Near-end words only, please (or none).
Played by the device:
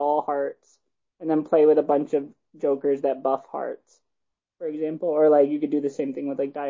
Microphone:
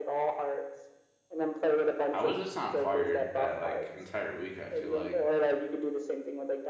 I was just on fire that like entire week, I feel like.